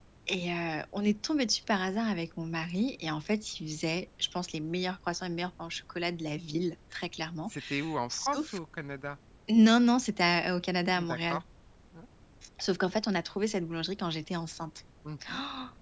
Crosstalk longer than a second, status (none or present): none